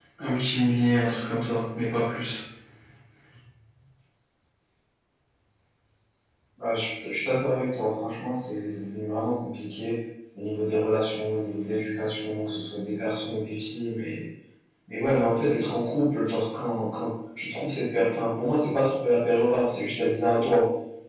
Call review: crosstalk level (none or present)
none